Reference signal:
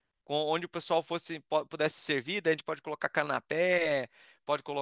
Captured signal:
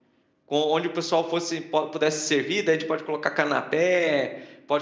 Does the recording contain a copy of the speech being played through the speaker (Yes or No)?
Yes